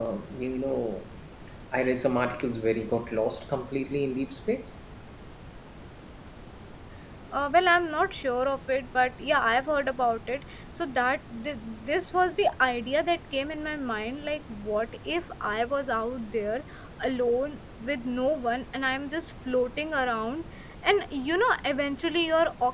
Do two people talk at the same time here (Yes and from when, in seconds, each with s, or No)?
No